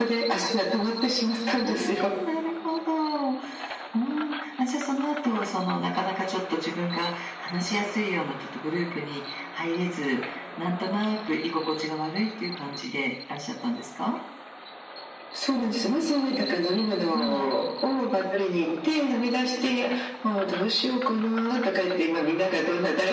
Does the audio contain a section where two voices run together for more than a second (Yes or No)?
No